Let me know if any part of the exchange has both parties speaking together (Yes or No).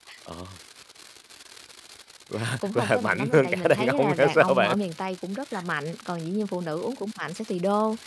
Yes